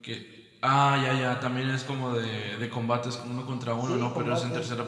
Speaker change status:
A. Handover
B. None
A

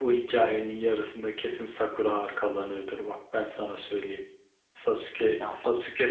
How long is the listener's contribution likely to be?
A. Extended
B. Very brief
B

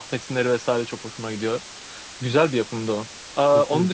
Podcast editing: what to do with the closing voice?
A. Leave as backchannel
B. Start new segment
A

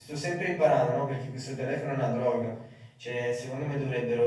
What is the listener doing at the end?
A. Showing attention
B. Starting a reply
A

